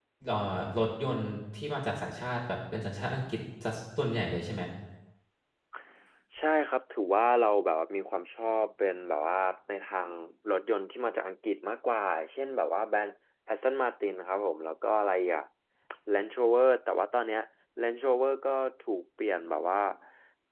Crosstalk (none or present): none